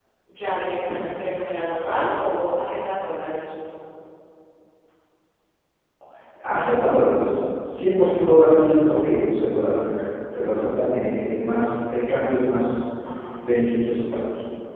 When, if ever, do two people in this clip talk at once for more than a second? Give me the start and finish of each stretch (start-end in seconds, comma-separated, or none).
none